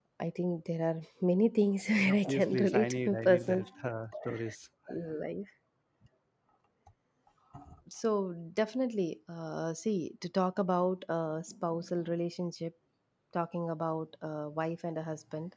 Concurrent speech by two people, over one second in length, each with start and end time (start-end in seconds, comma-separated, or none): 2.0-3.6